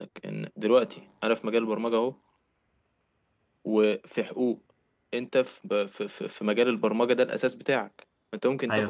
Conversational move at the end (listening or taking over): listening